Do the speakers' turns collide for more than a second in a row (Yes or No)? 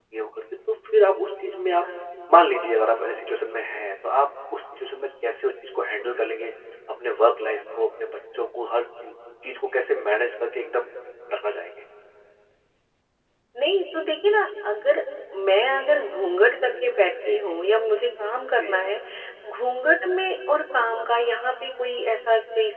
No